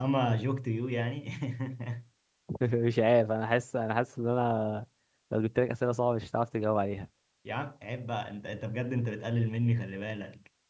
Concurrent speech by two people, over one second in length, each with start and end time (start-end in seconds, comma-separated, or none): none